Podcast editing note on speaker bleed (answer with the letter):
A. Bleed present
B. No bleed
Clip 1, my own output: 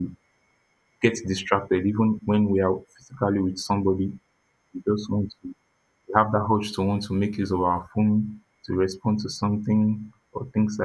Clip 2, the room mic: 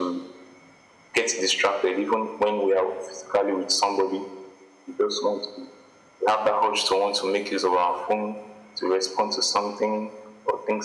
A